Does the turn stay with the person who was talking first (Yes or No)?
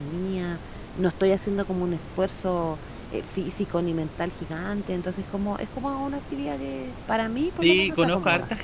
No